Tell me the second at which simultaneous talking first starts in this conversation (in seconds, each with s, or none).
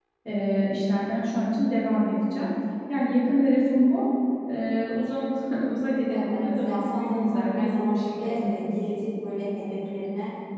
6.1 s